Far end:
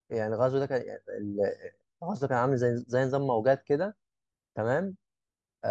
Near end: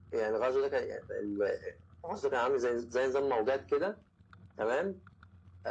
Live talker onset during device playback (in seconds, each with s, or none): none